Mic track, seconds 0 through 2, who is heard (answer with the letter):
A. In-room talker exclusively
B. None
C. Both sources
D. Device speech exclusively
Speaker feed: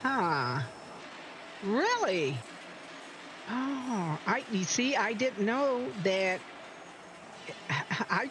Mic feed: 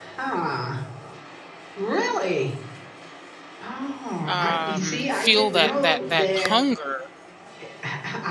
D